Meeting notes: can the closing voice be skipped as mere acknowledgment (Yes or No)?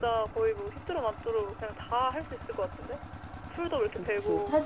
No